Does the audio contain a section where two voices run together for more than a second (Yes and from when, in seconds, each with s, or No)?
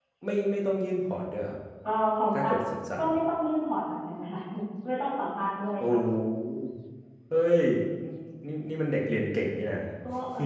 No